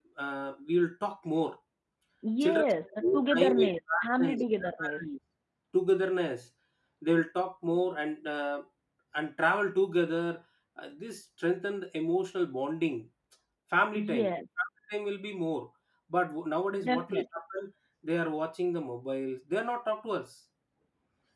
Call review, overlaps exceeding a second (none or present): present